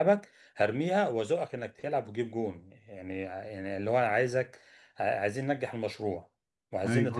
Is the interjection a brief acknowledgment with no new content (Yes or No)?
No